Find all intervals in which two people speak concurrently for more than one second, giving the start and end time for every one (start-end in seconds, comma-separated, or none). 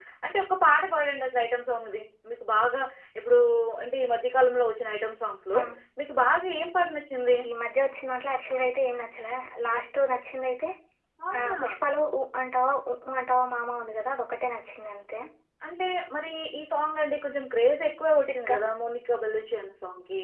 none